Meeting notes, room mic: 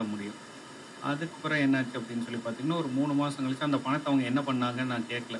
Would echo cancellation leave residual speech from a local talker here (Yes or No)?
No